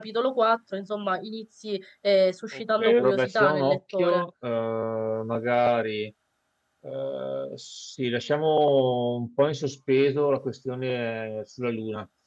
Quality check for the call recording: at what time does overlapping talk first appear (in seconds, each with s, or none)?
2.8 s